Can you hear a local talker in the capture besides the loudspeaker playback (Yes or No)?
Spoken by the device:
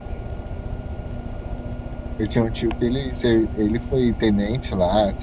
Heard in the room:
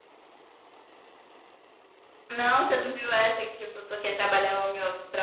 Yes